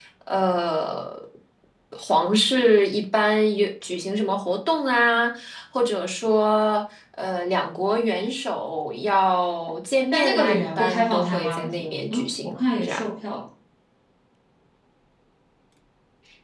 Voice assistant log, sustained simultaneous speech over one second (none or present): present